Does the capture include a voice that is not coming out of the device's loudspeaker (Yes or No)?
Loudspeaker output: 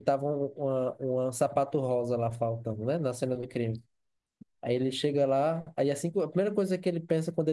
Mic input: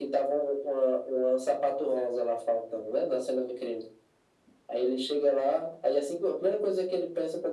No